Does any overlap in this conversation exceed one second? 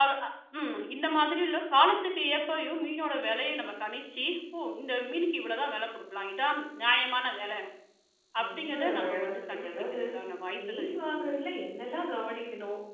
Yes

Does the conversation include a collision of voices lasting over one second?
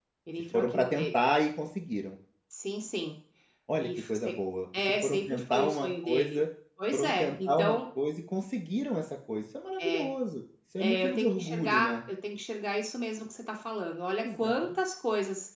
Yes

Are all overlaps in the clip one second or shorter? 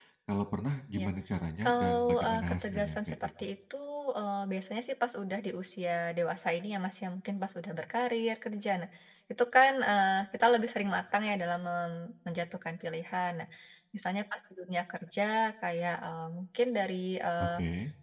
No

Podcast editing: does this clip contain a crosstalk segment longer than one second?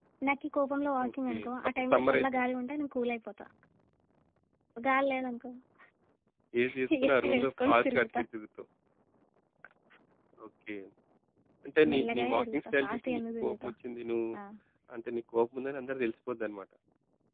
Yes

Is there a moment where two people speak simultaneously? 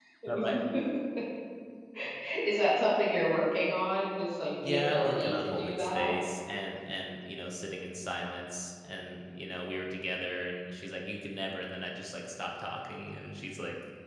Yes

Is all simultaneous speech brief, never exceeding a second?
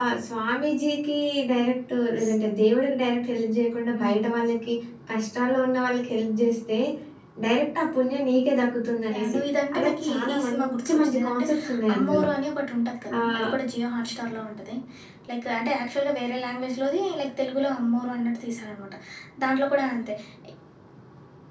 No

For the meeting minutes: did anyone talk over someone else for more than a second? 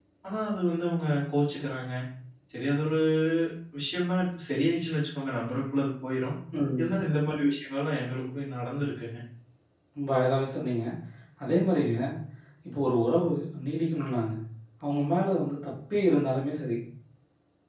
No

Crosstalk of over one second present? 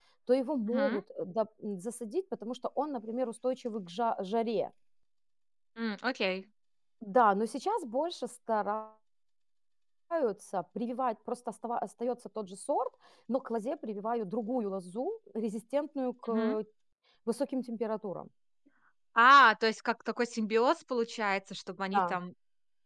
No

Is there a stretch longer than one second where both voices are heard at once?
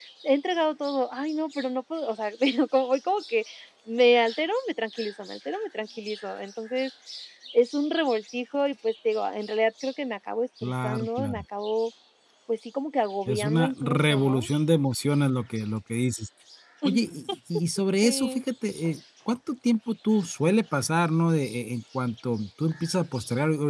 Yes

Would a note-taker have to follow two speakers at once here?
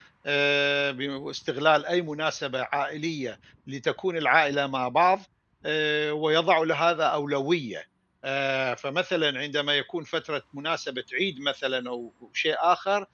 No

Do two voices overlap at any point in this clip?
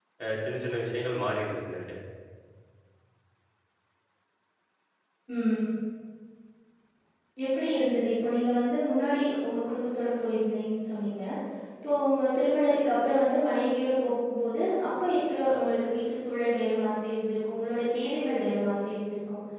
No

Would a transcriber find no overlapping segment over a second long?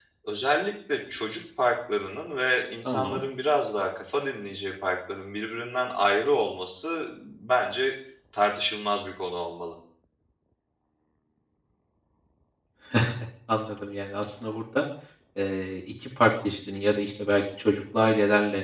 Yes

